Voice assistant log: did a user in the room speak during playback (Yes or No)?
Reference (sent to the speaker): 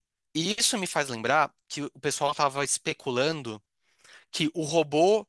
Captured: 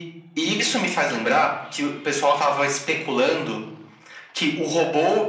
No